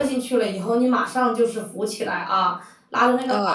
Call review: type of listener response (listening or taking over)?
listening